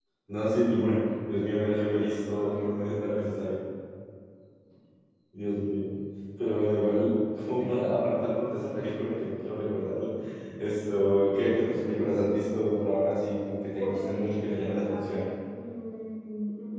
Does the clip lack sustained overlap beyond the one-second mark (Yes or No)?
No